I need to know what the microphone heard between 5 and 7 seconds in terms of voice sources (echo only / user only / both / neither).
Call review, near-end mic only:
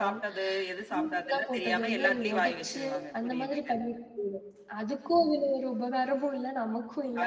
user only